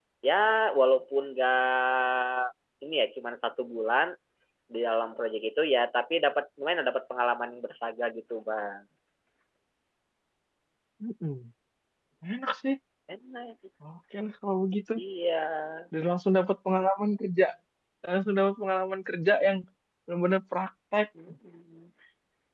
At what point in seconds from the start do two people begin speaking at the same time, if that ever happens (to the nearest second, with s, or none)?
none